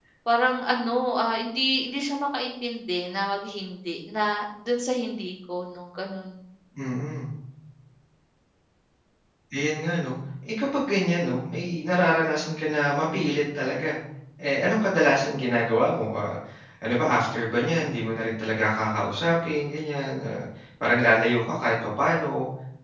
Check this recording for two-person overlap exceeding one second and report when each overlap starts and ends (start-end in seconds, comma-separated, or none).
none